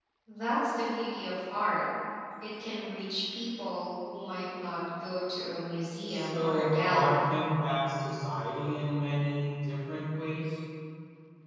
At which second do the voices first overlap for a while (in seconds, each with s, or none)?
6.1 s